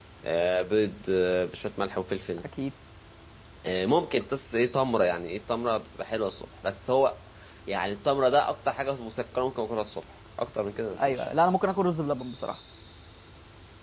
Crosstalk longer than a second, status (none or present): none